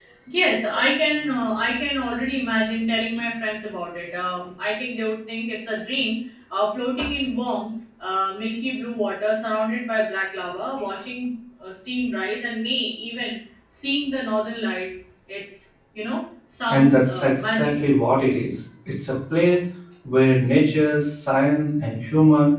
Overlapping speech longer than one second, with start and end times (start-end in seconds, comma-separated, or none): 16.7-17.9